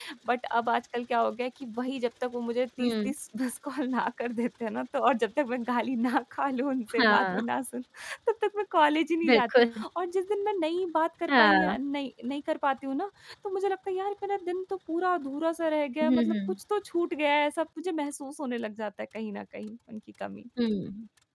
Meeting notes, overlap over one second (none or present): none